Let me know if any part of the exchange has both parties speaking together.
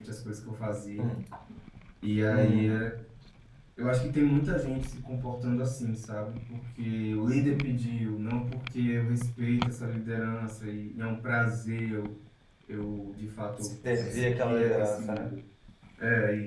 Yes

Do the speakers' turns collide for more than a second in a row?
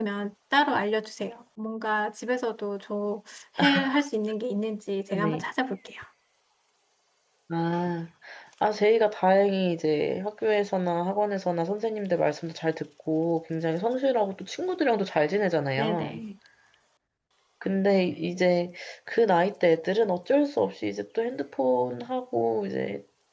No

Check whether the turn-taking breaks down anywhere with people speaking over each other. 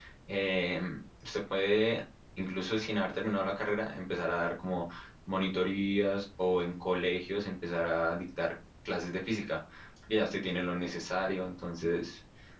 No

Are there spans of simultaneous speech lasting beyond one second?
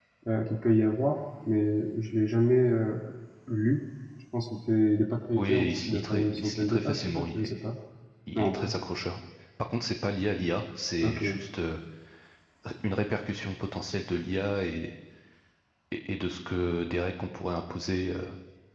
Yes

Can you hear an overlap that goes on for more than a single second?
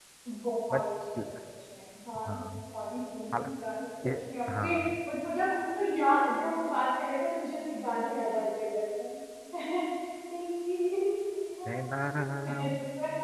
No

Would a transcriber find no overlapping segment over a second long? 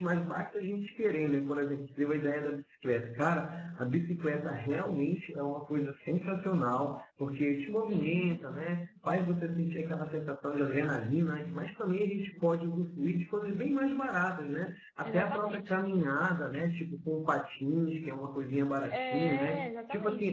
No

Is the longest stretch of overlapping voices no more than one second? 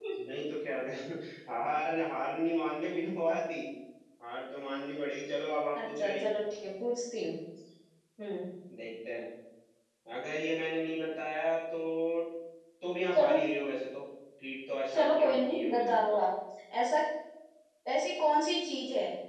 No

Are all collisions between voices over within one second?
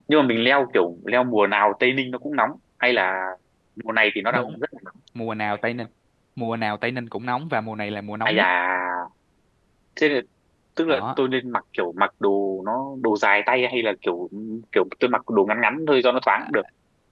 Yes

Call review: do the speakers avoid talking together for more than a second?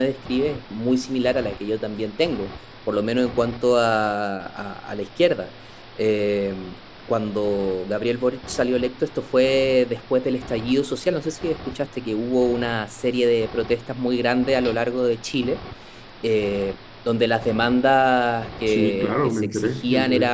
No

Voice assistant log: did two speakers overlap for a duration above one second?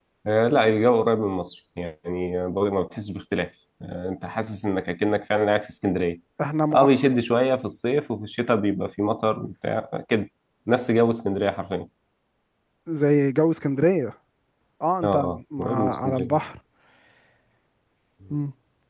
Yes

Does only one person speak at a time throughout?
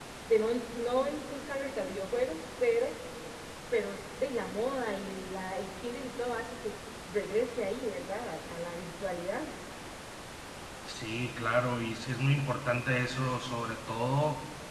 Yes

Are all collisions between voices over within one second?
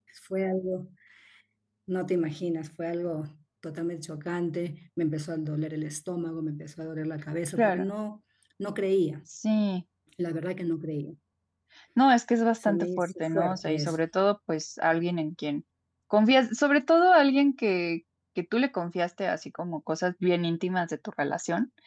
No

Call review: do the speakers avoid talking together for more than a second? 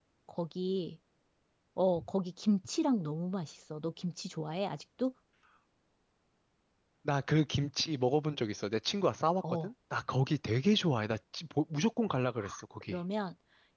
Yes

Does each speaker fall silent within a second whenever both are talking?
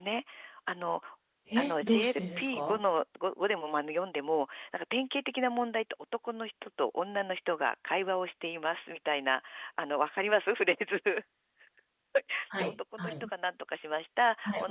No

